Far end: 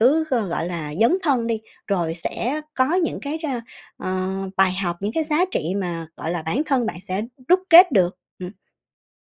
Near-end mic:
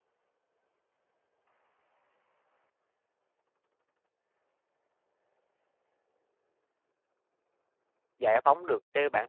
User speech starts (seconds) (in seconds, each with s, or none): 8.2 s